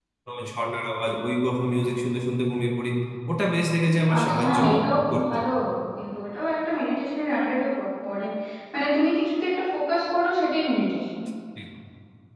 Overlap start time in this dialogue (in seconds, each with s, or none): 4.2 s